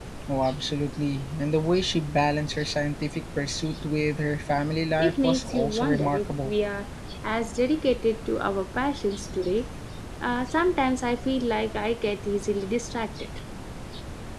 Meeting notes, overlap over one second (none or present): present